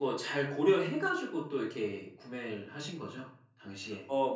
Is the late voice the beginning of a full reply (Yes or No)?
Yes